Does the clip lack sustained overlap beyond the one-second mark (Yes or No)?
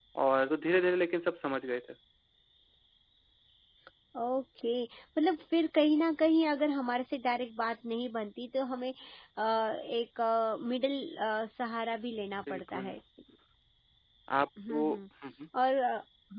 Yes